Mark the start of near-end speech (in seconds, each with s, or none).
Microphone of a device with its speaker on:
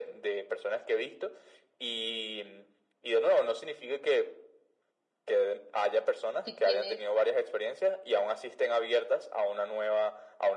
6.4 s